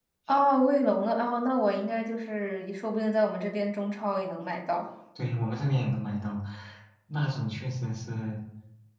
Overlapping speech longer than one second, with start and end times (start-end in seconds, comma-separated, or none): none